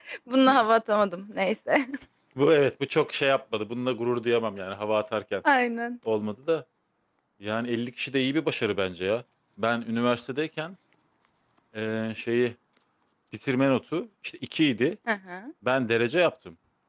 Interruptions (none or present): none